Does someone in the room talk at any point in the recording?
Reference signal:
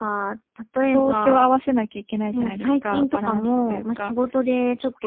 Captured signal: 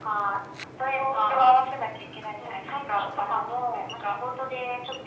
No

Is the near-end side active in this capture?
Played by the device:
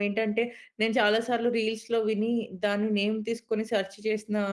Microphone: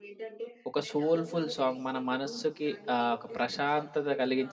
Yes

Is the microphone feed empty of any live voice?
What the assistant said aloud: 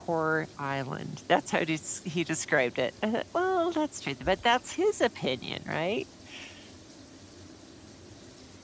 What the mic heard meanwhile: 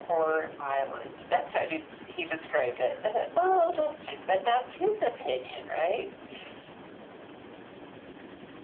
Yes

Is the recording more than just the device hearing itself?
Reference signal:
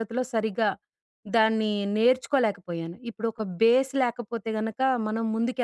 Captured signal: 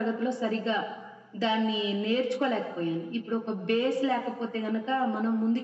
No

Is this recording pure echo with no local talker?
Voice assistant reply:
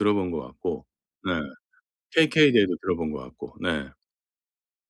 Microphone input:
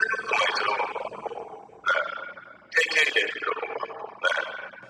Yes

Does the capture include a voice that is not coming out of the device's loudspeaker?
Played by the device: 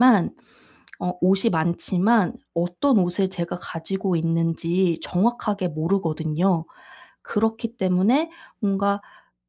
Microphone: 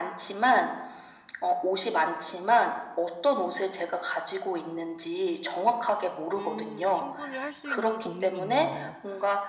Yes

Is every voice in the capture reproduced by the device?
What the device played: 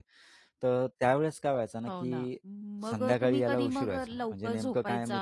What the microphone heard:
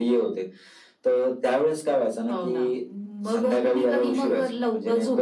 Yes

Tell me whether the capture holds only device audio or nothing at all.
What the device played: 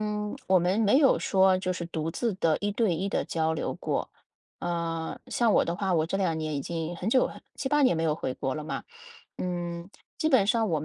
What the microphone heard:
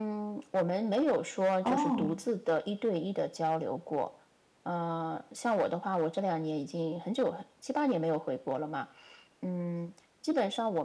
No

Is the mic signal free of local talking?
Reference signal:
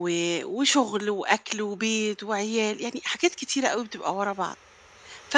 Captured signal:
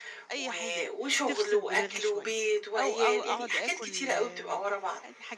No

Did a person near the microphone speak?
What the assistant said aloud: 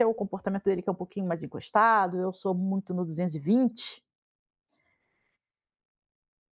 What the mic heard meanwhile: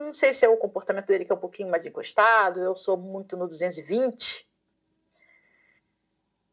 No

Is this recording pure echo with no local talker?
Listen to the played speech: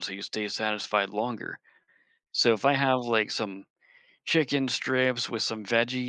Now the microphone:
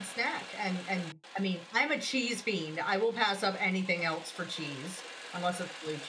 No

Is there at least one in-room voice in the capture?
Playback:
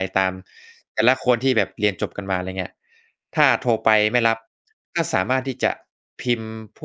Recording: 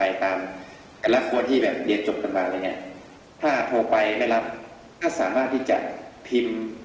No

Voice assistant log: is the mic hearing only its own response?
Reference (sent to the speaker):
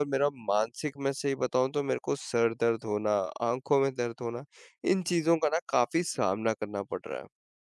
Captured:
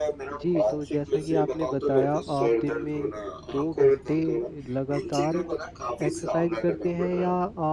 No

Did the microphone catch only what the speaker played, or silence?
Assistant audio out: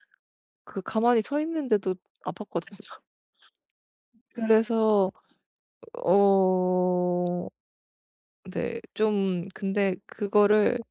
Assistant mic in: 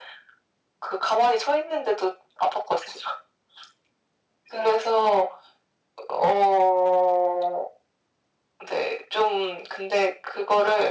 Yes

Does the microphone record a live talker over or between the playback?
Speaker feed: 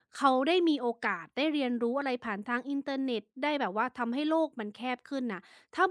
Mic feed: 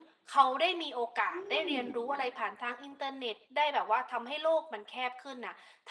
Yes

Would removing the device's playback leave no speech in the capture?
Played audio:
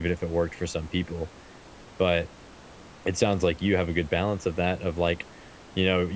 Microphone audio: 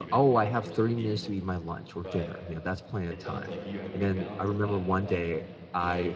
No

